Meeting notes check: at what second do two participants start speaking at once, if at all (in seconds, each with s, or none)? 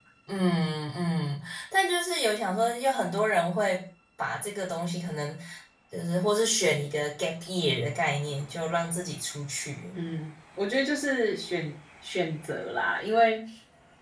none